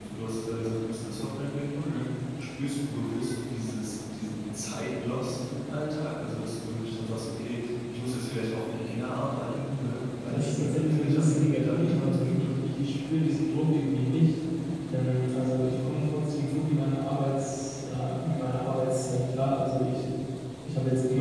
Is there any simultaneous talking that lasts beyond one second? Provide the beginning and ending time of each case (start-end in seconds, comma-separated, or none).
10.1-12.5